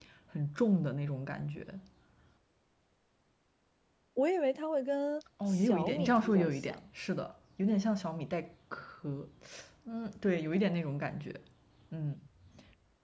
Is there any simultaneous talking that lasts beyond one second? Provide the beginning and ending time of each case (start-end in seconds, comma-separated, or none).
5.5-6.8